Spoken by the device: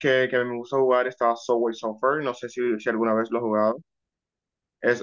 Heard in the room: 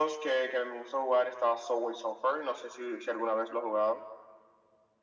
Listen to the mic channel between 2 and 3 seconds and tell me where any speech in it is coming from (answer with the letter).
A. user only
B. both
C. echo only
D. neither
C